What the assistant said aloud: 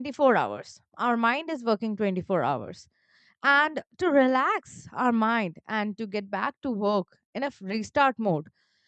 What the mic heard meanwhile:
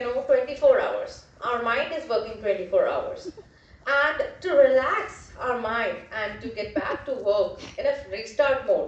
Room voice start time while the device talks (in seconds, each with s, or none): none